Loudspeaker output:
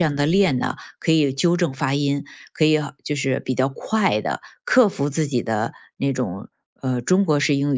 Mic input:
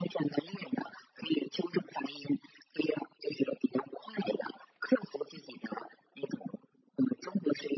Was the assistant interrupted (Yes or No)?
No